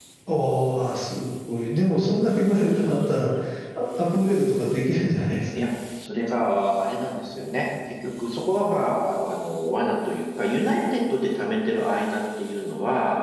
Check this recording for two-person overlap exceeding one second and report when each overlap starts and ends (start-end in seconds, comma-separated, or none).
none